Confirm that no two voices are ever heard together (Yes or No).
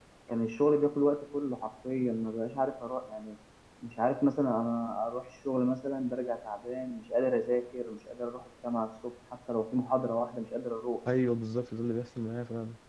Yes